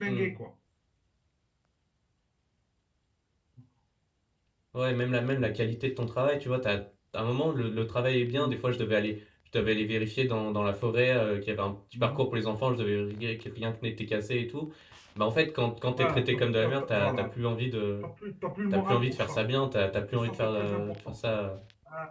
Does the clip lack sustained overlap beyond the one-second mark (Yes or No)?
No